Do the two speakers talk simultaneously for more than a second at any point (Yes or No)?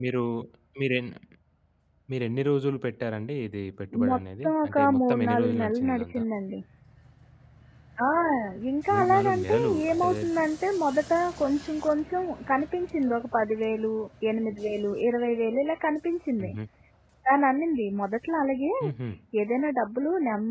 Yes